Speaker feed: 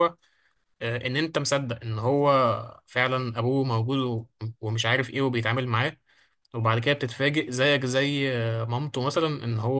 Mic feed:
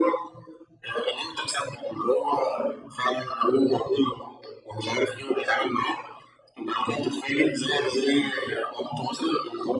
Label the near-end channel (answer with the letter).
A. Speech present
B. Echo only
B